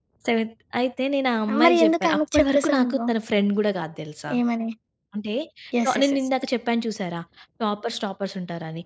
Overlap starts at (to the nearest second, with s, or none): 2 s